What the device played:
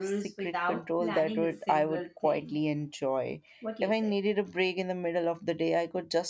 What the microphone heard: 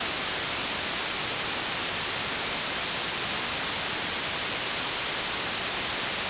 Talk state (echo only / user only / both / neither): neither